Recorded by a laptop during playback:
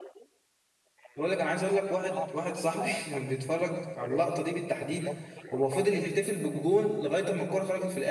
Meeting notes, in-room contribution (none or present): present